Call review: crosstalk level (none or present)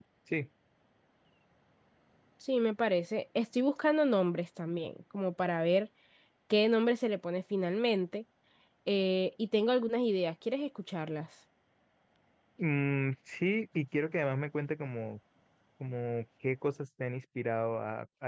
none